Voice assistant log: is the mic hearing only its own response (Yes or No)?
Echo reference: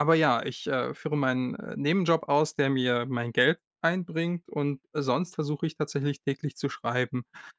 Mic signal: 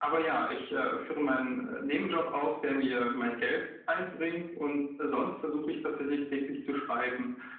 Yes